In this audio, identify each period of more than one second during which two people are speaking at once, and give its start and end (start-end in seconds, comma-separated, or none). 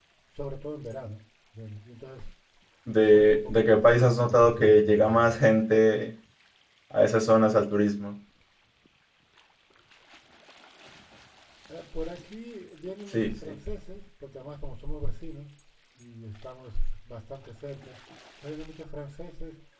2.9-5.4